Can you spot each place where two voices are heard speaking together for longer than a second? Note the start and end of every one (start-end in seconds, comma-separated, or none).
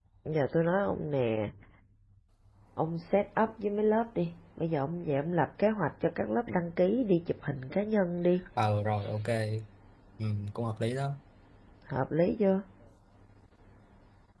none